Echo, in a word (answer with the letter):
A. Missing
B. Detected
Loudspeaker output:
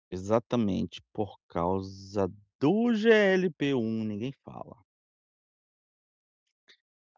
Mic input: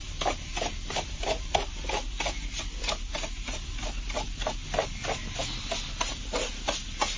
A